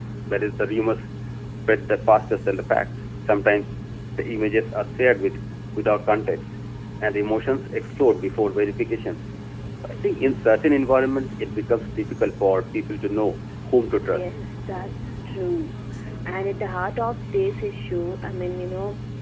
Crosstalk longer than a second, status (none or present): none